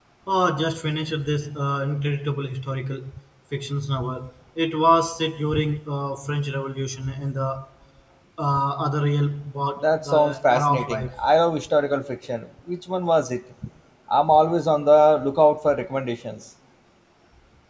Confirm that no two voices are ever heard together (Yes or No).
No